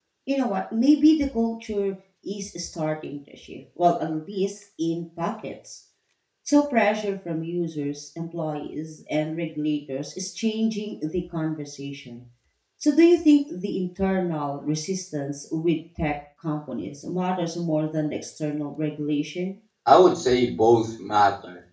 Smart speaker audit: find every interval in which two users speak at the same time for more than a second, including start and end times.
none

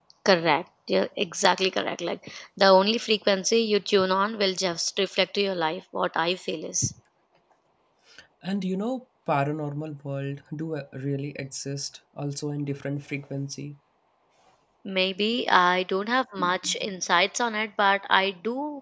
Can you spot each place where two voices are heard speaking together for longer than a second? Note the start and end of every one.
none

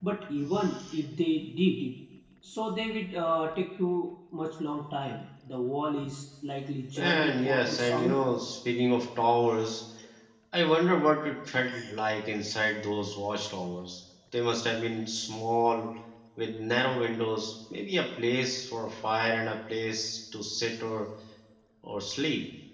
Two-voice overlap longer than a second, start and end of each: 7.0-8.2

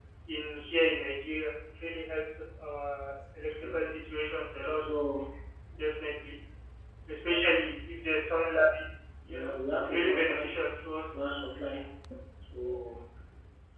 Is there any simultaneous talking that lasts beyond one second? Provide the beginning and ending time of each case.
9.3-10.5

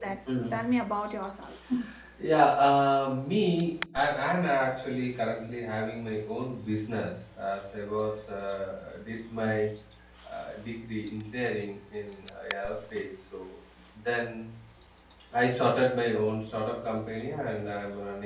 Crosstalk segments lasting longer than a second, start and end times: none

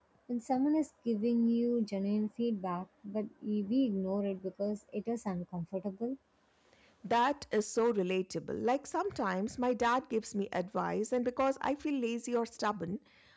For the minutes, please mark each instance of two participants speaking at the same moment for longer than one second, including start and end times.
none

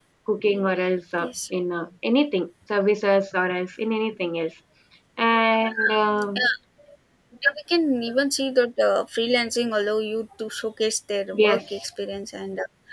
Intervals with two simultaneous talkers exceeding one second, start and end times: none

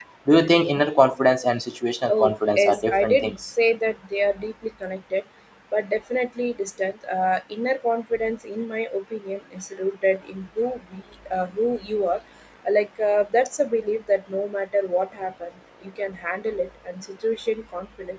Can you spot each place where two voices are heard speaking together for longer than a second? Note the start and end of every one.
2.1-3.4

